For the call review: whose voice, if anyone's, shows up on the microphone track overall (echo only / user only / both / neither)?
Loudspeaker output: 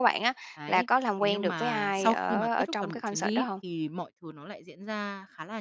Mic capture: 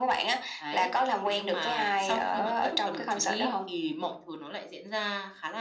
echo only